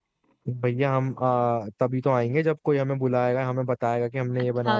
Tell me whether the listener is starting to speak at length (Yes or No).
Yes